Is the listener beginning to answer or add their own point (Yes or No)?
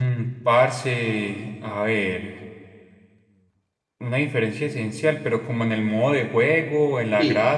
Yes